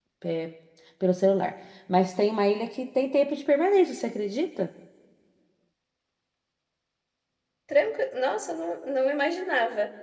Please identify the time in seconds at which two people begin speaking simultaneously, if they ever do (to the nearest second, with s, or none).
none